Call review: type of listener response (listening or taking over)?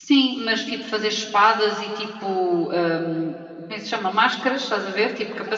taking over